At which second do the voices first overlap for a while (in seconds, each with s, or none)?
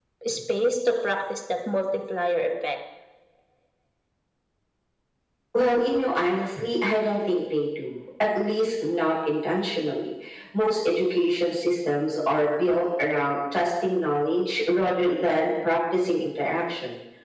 none